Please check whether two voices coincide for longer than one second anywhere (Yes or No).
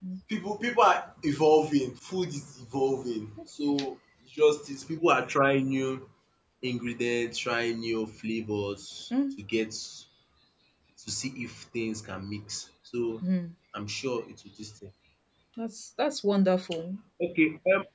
No